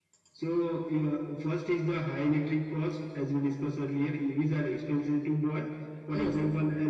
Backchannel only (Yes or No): Yes